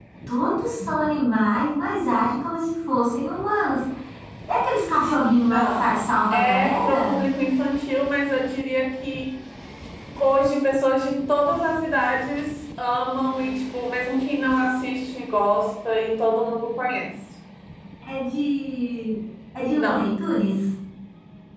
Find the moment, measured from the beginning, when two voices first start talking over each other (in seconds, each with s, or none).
5.4 s